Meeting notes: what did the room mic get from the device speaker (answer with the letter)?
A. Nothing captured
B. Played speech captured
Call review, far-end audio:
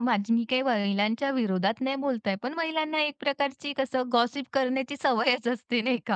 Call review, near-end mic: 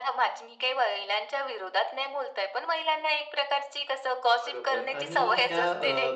B